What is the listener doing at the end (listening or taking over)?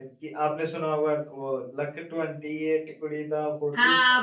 taking over